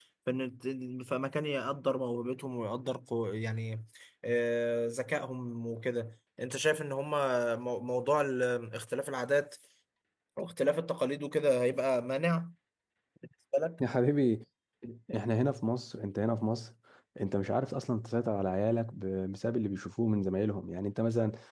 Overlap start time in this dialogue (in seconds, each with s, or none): none